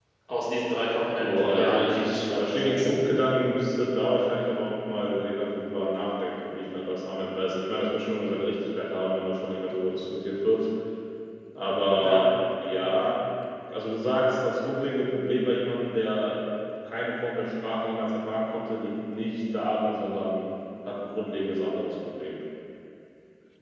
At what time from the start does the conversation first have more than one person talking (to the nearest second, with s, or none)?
1 s